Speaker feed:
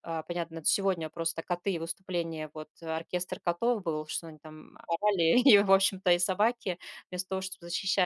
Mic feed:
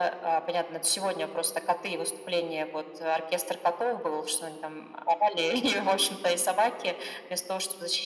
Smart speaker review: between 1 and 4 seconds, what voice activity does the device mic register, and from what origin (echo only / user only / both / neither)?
echo only